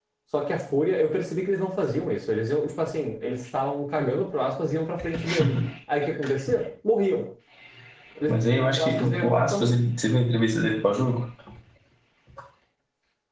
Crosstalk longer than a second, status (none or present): present